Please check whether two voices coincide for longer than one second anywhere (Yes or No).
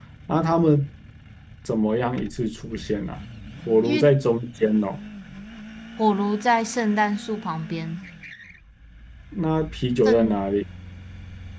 No